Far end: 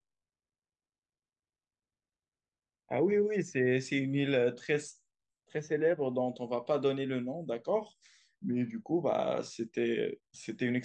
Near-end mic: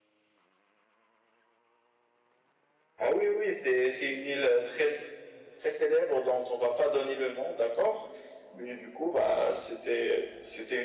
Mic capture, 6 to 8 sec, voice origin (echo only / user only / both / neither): echo only